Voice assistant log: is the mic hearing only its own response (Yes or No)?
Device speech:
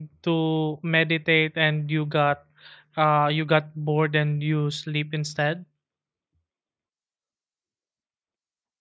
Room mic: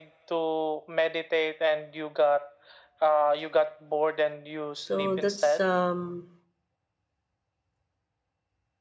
No